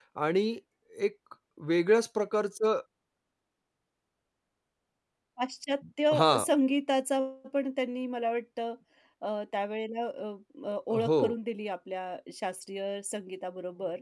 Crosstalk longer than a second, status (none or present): none